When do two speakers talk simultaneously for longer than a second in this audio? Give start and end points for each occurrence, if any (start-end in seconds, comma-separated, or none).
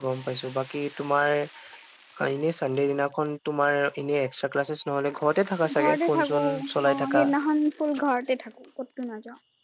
5.8-7.2